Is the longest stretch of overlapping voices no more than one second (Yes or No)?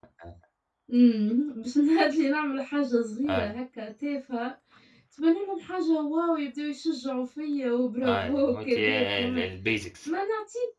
No